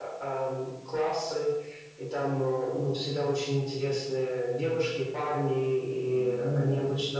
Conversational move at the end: listening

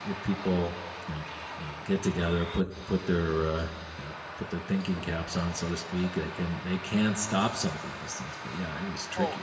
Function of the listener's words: taking over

